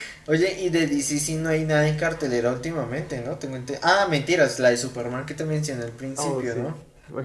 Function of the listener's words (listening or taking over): taking over